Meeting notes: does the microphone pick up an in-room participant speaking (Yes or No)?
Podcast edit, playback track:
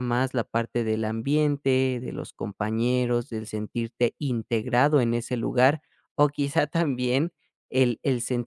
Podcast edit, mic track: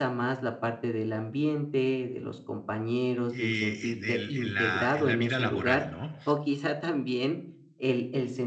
Yes